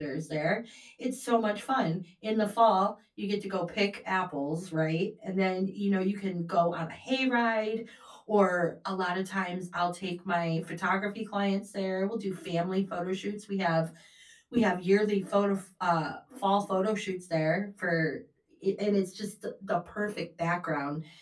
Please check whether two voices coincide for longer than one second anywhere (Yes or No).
No